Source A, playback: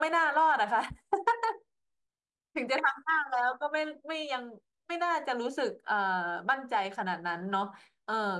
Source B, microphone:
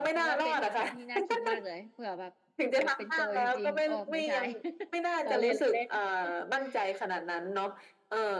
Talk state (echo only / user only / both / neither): both